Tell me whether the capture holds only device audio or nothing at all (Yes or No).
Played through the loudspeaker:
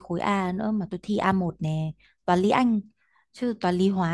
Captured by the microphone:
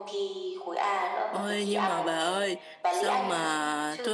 No